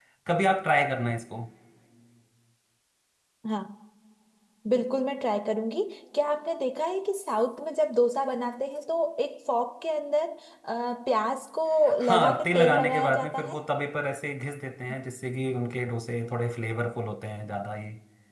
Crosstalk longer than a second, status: present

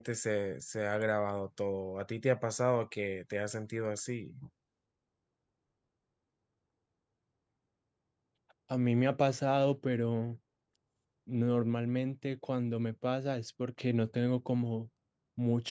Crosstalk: none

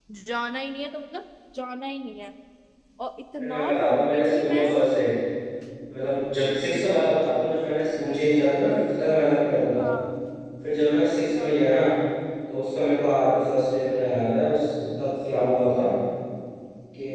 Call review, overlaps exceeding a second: present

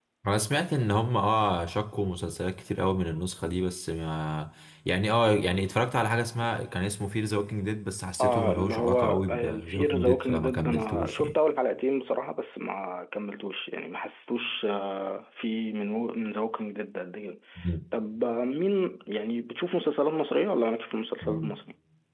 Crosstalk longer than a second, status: present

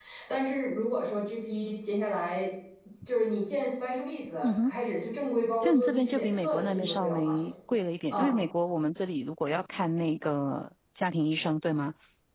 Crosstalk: present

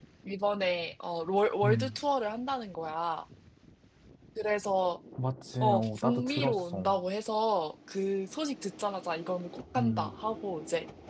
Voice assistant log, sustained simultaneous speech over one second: present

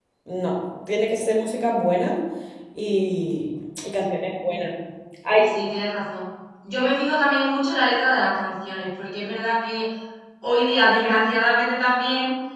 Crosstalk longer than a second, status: none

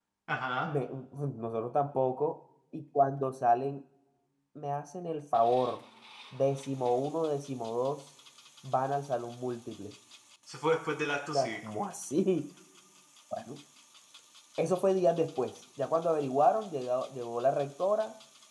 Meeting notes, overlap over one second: none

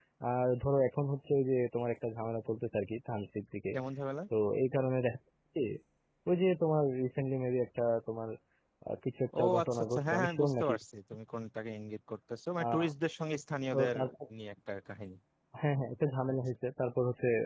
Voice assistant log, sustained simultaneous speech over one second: present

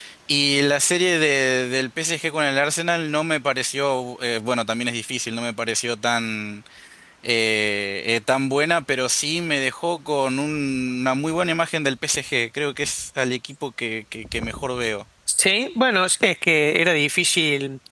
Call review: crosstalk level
none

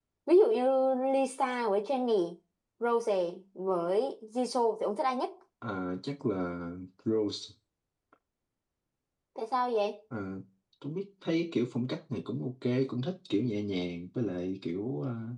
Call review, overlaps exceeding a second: none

